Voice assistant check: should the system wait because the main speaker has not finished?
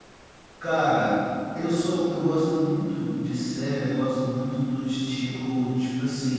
Yes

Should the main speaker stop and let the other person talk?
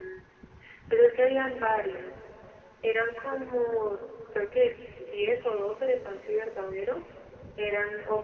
No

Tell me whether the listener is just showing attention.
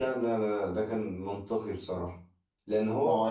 Yes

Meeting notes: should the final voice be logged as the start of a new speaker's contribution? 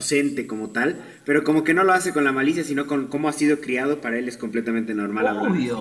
Yes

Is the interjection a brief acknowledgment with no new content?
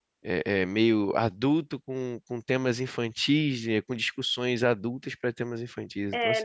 No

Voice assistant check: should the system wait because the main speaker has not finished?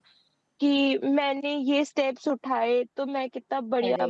Yes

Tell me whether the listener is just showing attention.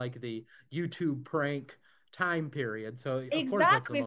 No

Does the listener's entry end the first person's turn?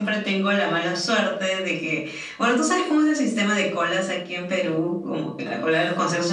No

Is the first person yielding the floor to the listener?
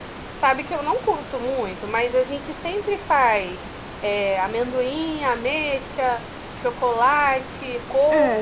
Yes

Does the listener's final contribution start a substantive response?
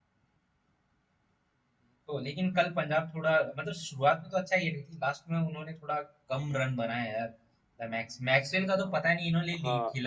Yes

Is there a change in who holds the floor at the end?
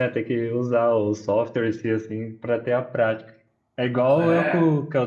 No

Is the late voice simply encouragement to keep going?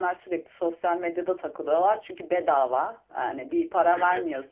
Yes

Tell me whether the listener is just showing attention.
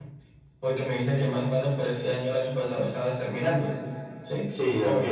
No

